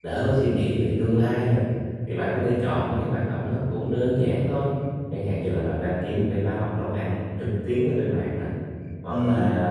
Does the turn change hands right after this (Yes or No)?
No